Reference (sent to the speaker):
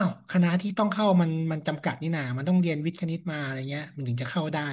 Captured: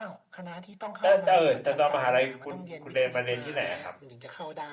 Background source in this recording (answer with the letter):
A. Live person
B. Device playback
B